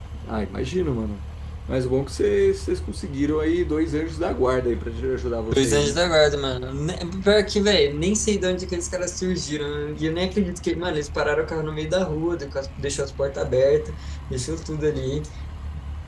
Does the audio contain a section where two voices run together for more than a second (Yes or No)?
No